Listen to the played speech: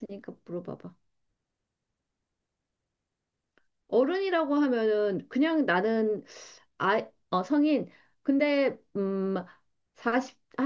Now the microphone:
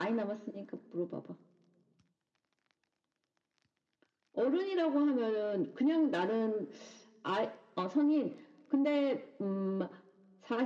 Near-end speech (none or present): none